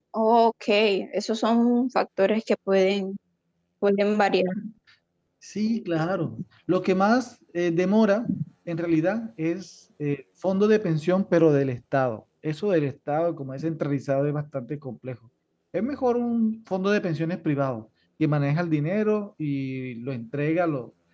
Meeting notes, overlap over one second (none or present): none